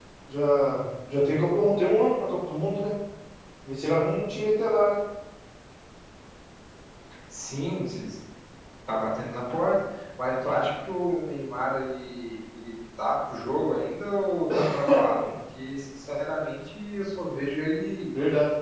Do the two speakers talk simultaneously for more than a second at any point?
No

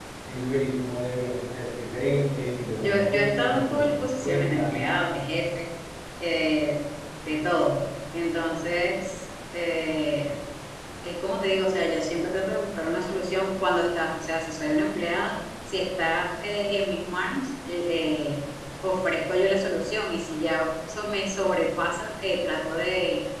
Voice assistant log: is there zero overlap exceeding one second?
No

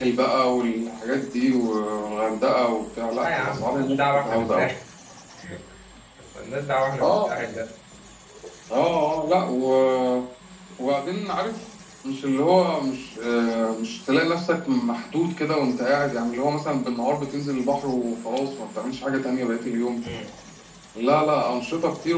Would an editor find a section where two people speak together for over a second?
Yes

